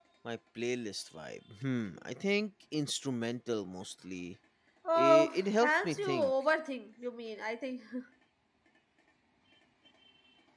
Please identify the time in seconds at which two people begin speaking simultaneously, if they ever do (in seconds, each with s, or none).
5.0 s